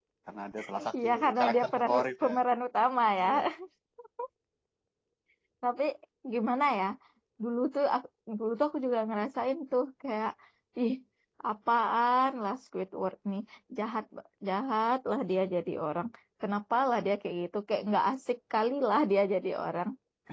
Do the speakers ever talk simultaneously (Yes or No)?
Yes